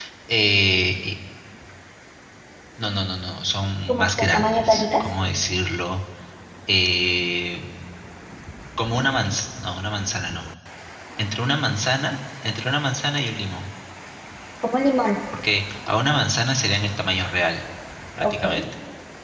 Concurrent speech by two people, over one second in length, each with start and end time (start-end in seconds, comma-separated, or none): 3.9-5.1